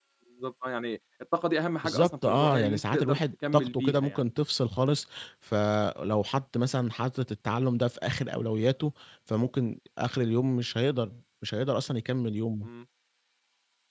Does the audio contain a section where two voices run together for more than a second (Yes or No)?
Yes